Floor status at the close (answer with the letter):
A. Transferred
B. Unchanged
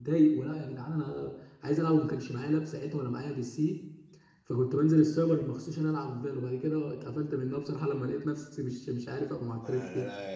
A